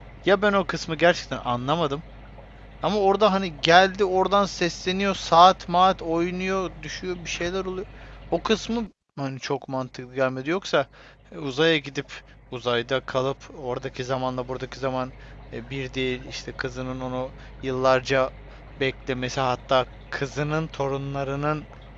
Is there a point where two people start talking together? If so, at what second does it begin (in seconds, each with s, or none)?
none